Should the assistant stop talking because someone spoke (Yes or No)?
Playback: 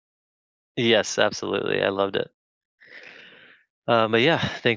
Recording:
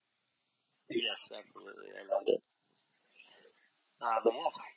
No